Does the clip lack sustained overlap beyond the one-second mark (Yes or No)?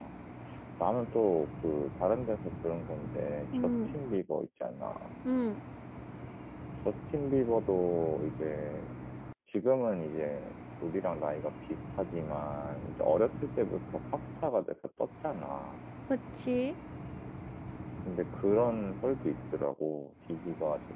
Yes